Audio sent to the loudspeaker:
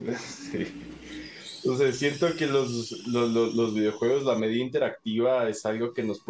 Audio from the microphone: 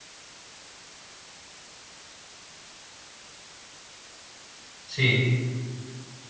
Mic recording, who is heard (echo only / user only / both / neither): user only